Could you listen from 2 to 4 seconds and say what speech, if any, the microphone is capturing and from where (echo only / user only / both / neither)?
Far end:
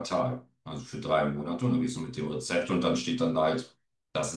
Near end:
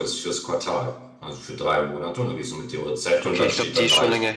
both